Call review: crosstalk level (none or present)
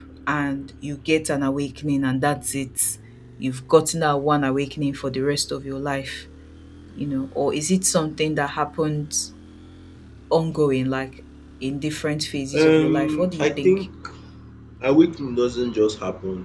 present